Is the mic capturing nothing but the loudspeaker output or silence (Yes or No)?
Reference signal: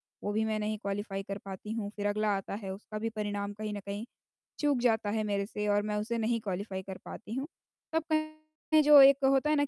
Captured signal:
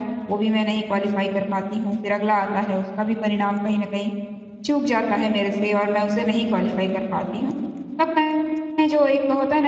Yes